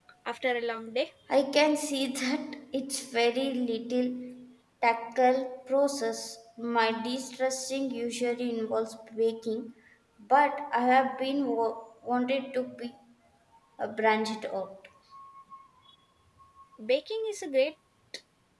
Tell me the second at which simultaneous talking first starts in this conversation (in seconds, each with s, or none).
none